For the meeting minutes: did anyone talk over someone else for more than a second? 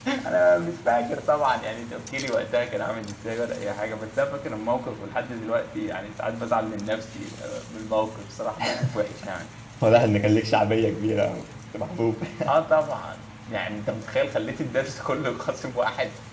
No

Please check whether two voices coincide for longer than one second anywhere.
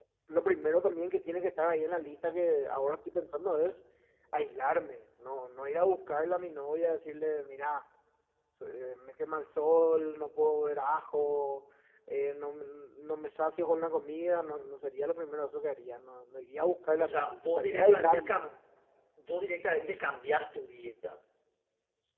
Yes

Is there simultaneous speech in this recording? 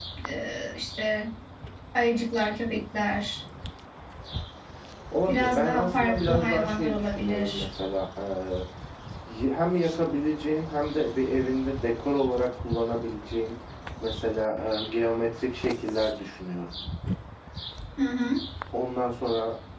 Yes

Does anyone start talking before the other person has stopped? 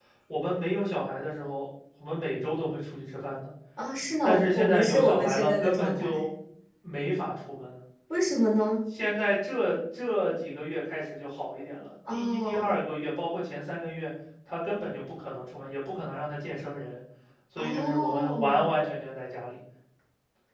Yes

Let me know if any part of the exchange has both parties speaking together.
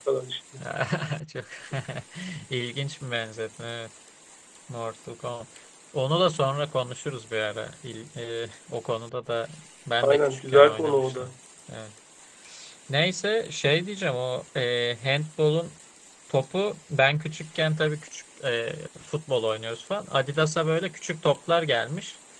Yes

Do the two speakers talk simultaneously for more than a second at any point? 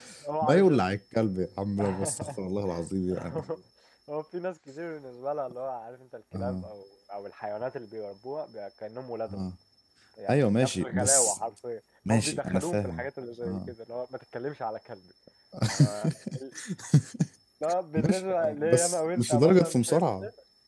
Yes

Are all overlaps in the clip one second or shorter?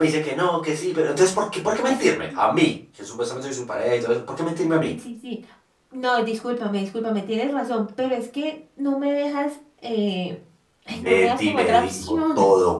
No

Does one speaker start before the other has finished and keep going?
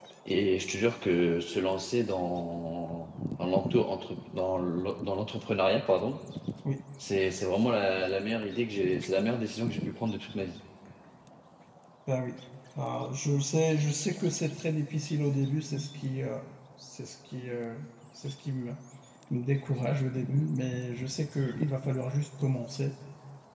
No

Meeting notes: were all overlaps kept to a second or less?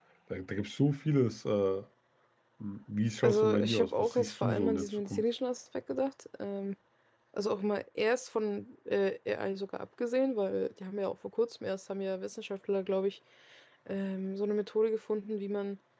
No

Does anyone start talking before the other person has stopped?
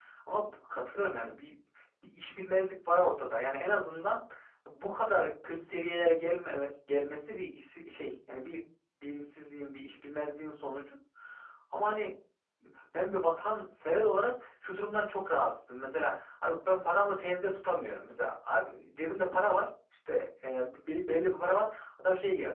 No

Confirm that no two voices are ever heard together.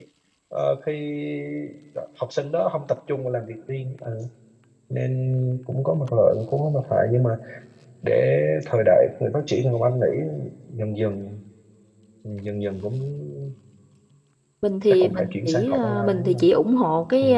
No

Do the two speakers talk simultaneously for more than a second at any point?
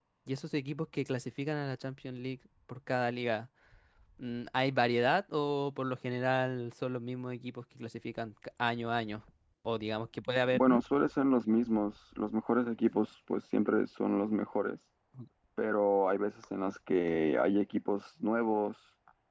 No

